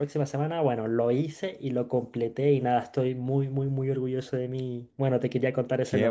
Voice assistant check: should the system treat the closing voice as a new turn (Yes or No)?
Yes